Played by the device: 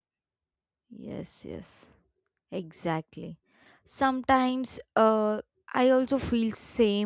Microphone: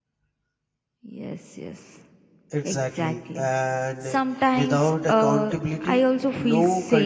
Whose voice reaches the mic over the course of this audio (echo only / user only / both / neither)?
both